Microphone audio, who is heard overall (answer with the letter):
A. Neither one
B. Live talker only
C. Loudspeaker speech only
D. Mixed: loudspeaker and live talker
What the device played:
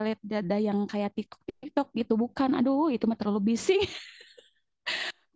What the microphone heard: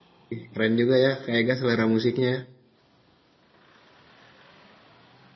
B